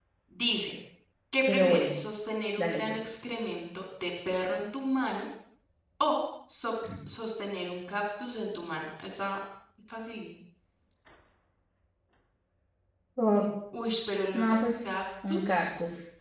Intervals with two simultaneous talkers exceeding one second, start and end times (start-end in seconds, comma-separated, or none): none